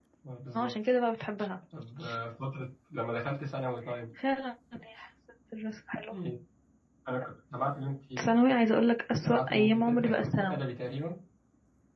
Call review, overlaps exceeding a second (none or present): present